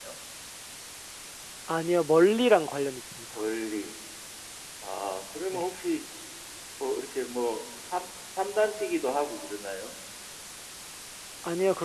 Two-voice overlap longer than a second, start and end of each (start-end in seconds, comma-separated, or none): none